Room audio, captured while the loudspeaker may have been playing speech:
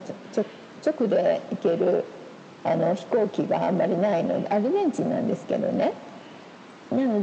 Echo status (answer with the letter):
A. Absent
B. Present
B